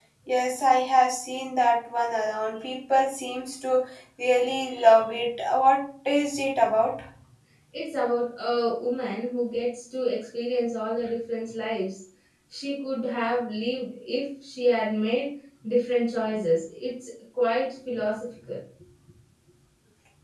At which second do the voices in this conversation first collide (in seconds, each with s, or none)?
none